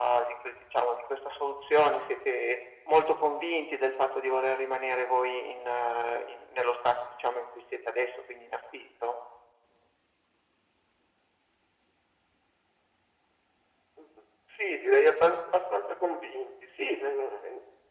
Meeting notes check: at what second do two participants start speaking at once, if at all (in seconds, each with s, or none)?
none